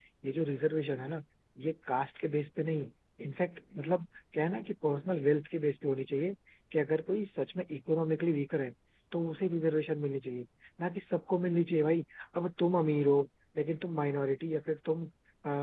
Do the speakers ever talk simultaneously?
No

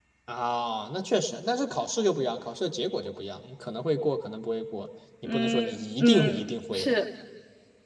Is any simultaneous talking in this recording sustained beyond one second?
Yes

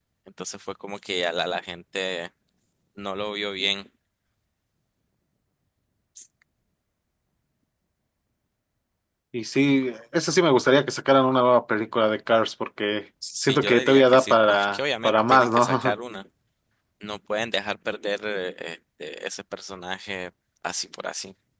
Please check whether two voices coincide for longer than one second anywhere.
Yes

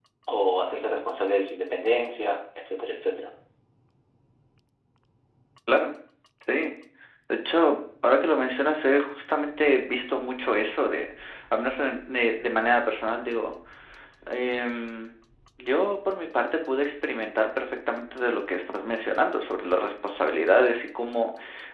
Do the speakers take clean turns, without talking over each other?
Yes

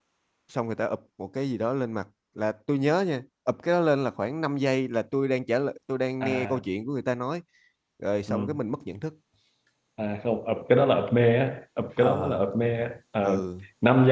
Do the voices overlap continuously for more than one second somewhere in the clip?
No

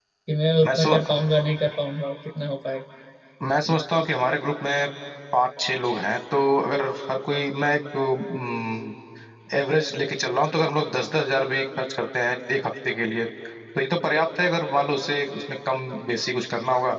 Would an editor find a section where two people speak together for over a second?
No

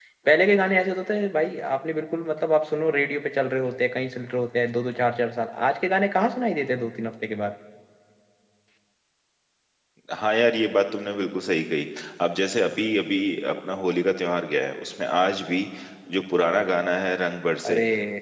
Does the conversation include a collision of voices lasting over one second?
No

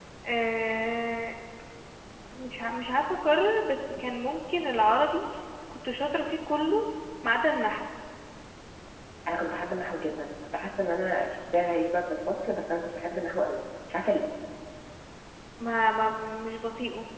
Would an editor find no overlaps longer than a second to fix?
Yes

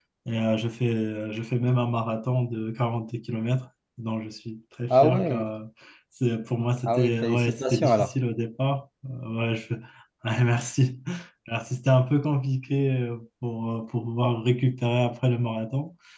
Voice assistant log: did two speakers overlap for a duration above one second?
Yes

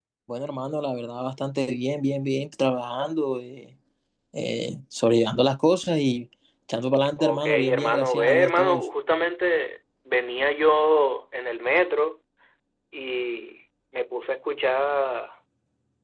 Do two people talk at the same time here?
Yes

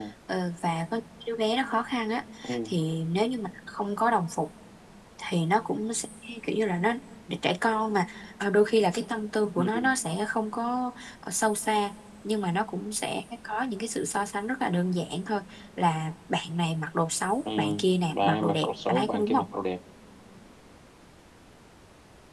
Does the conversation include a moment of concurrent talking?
Yes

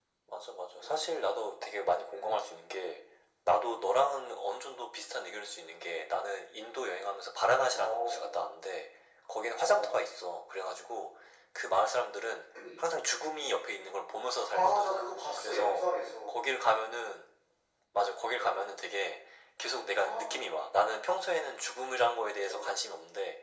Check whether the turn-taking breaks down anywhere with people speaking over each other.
Yes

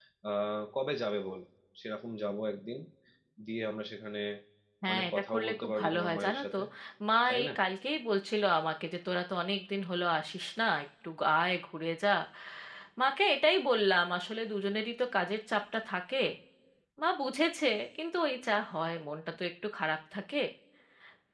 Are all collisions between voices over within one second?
No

